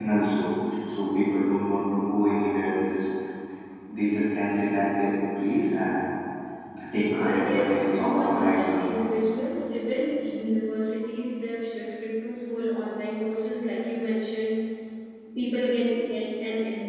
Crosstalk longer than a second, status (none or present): present